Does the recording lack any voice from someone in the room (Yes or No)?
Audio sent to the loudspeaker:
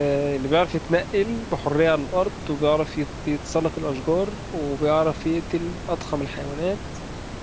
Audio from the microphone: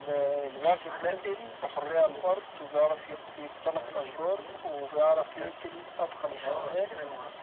No